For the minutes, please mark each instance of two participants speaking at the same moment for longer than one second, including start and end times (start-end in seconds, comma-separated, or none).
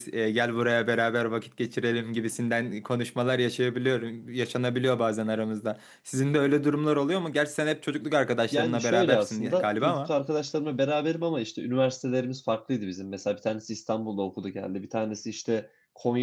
8.5-10.1